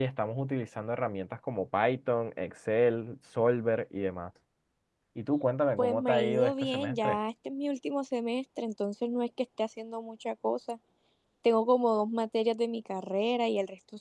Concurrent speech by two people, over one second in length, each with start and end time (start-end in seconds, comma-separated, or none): 5.8-7.2